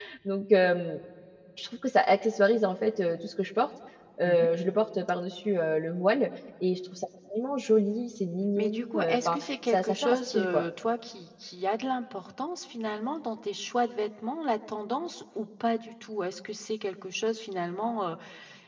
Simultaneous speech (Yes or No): Yes